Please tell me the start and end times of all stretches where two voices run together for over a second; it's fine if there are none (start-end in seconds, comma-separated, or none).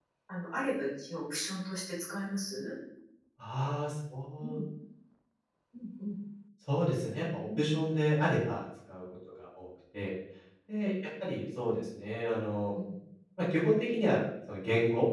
none